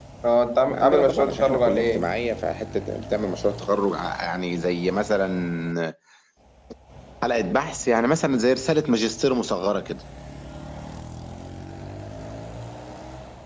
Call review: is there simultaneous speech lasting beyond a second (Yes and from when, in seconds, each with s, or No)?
Yes, from 0.7 s